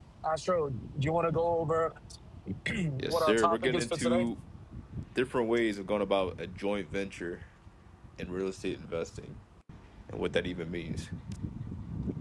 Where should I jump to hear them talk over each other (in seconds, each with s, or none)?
3.0 s